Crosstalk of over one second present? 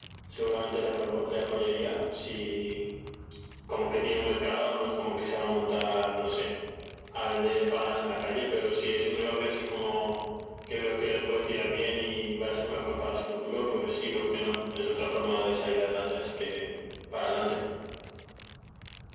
No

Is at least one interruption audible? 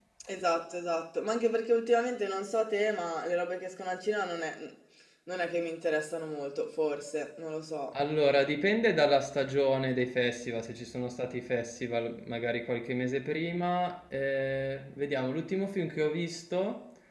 No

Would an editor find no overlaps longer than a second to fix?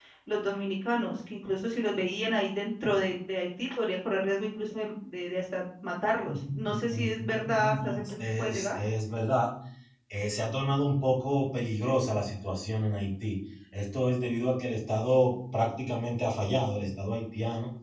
No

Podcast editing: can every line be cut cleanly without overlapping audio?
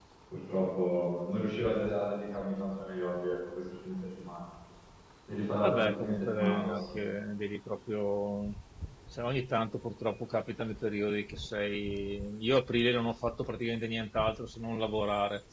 No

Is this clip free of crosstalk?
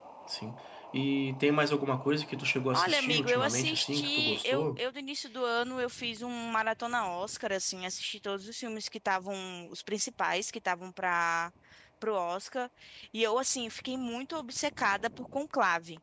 No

